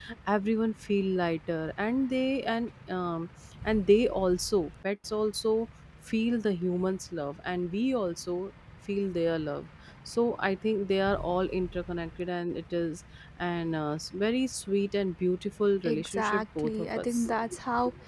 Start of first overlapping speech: 15.8 s

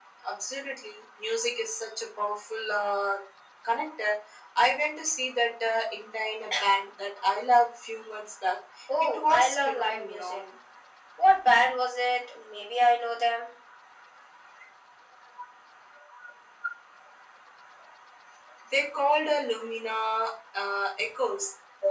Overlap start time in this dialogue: 9.0 s

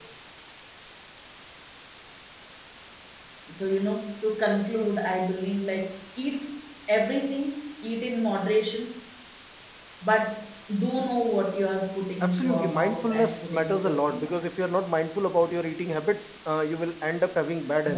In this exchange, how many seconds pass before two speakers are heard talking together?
12.2 s

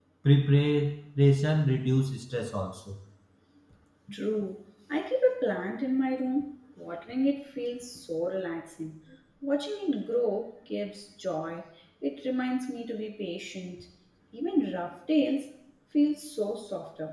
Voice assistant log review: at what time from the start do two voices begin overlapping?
none

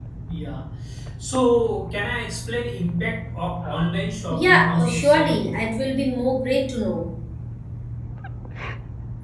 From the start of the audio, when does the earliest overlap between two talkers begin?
4.3 s

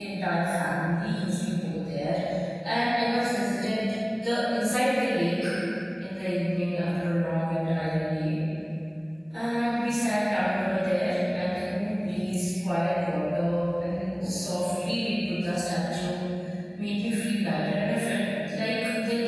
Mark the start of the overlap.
none

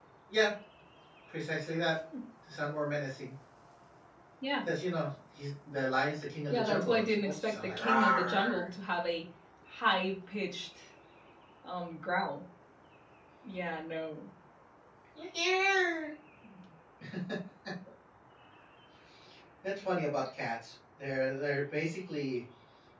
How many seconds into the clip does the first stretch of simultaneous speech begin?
6.5 s

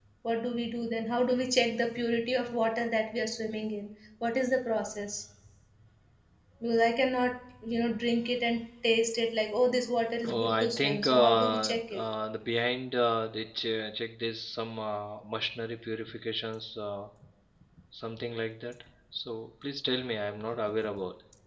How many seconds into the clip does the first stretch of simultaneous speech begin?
10.2 s

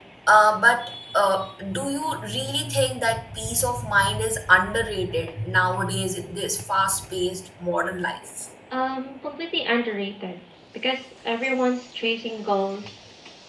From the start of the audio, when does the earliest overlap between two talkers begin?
none

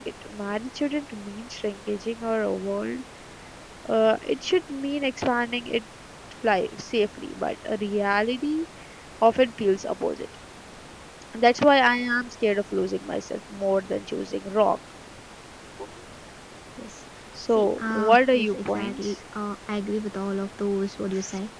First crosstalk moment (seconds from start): 17.6 s

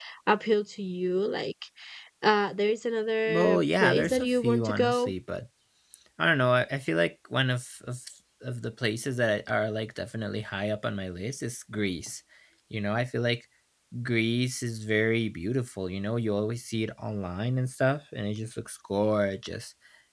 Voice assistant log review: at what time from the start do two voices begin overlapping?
3.3 s

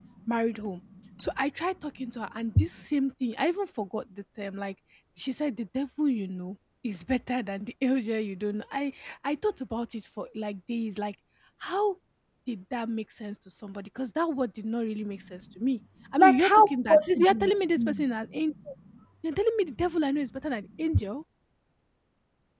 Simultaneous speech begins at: 16.2 s

